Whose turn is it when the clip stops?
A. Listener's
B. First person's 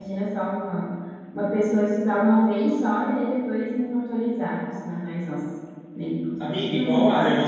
A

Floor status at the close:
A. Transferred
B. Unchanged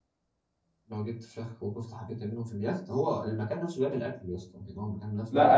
A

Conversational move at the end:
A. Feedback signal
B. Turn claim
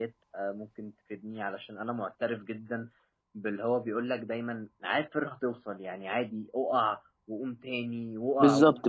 B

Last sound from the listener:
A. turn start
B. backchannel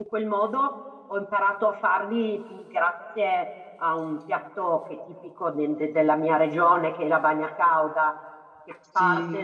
B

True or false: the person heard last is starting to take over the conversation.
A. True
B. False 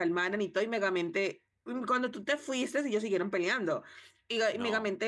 B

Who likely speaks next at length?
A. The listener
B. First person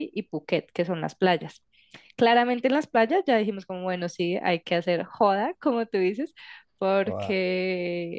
B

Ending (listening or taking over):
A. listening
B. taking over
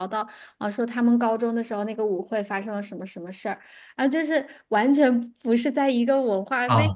B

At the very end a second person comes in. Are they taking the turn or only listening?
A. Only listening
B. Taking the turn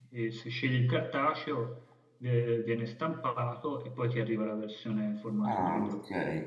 B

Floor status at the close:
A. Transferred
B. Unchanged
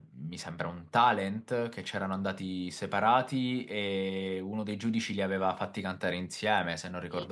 A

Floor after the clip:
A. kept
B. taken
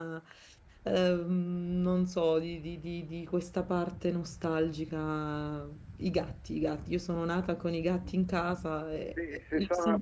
B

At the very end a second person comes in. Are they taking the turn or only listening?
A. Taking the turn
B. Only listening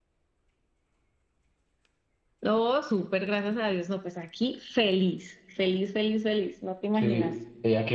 A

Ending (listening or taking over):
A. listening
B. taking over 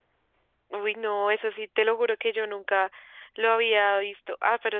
A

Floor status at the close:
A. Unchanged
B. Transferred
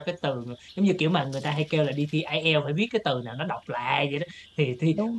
A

